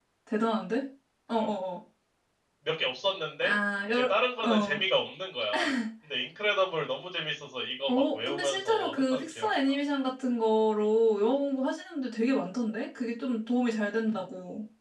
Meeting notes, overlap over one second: present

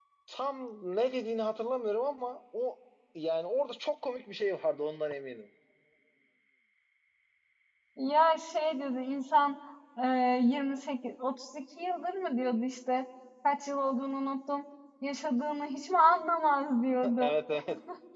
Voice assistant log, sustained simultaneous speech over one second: none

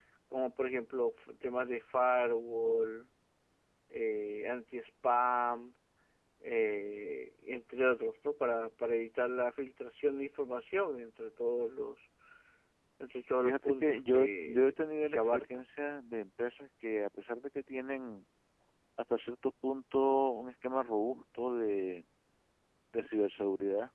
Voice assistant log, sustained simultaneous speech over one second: present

